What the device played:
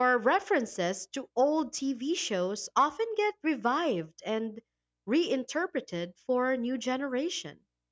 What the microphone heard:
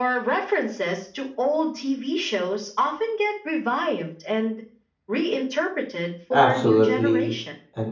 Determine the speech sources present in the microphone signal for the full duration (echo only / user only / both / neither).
both